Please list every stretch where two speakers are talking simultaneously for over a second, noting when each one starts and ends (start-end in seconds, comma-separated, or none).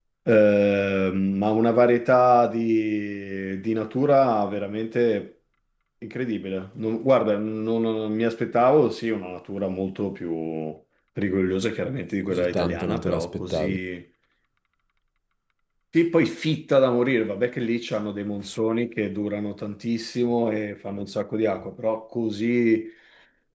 12.3-13.8